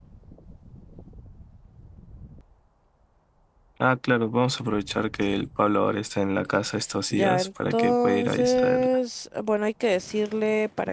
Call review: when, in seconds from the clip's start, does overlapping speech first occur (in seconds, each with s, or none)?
7.1 s